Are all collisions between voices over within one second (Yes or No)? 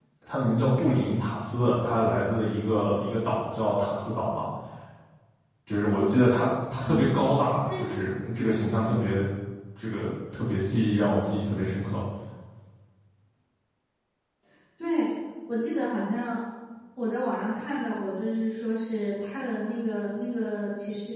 Yes